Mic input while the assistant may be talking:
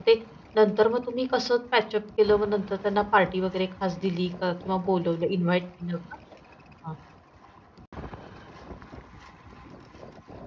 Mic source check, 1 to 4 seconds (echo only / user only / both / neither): user only